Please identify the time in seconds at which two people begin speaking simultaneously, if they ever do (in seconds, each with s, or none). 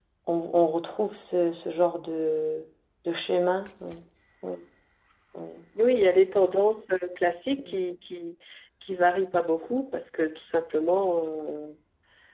none